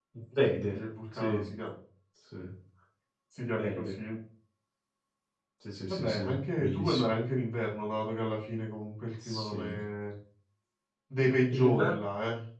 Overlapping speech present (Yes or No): Yes